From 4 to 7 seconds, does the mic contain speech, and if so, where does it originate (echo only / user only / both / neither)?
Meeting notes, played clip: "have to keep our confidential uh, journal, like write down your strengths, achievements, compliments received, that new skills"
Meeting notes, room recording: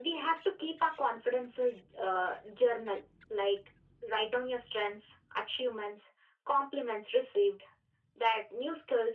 echo only